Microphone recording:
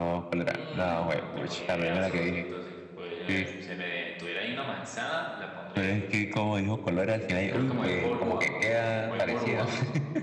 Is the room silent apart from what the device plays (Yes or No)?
No